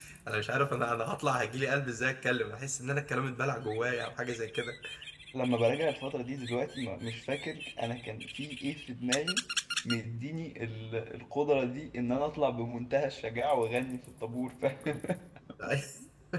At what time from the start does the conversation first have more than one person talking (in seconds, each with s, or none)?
none